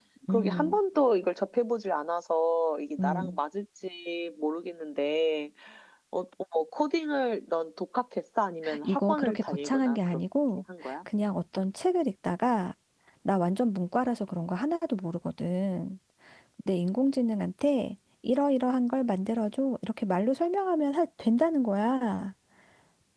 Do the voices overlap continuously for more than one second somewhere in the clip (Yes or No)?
Yes